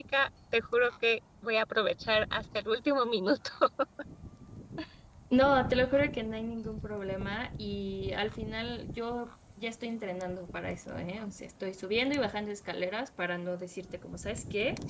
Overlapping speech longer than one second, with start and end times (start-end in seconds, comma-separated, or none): none